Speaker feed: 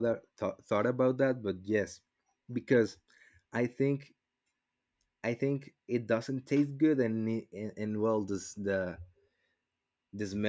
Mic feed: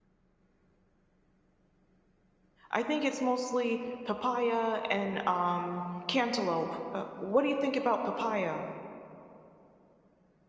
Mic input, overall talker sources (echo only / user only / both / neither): user only